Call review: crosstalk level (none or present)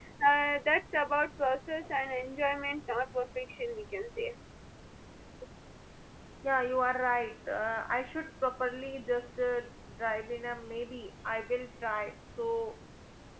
none